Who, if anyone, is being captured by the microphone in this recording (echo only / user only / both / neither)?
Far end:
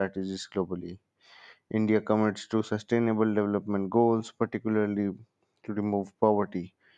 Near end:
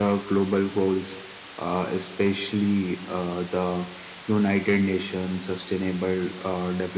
user only